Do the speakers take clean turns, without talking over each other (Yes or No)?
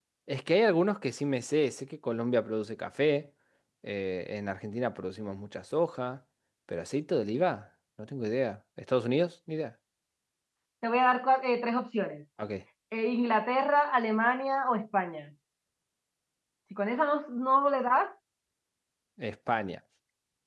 Yes